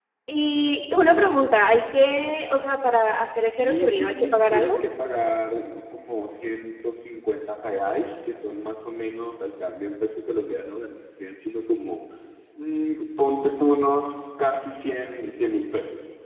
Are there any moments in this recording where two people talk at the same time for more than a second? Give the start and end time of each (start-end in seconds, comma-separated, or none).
3.5-4.8